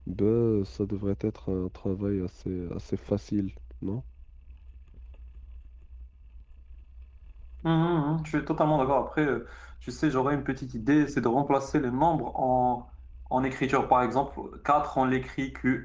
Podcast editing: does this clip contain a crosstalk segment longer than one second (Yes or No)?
No